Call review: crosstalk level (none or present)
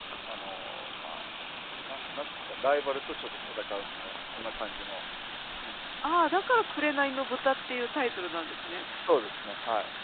none